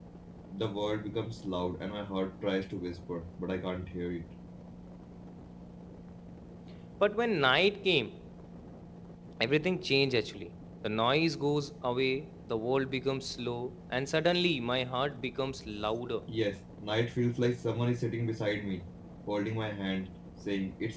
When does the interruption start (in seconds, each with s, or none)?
none